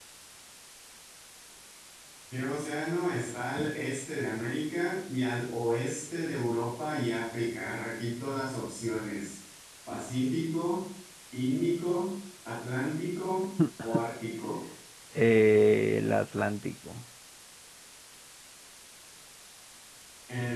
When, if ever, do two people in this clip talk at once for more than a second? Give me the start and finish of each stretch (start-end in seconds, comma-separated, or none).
none